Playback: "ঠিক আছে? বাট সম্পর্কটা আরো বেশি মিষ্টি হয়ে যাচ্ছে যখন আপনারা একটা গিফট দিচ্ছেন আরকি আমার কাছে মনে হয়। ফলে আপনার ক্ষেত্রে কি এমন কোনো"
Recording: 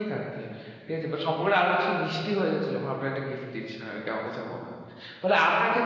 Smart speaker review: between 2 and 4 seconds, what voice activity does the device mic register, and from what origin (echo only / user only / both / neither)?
echo only